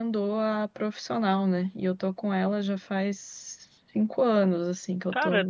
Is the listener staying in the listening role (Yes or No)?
No